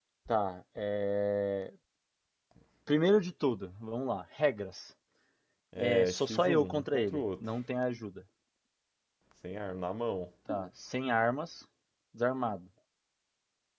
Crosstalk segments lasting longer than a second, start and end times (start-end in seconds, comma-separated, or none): 5.8-7.5